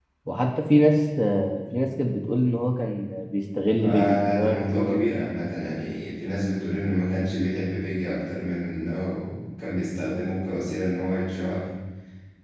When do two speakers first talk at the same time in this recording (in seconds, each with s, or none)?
3.8 s